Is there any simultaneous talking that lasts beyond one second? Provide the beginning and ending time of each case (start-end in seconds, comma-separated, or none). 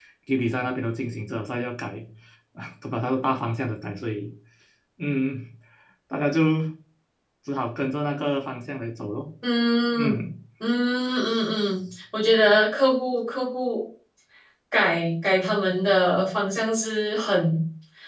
none